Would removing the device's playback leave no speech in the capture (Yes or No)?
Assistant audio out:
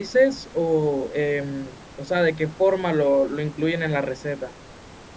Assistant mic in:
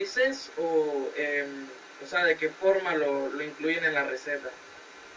Yes